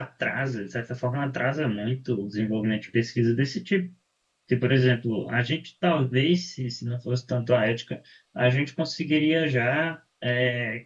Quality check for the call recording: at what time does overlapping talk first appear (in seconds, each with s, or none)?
none